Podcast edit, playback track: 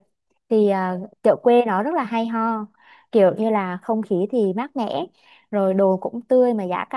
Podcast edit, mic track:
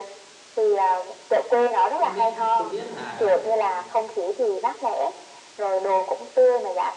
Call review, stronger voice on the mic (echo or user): echo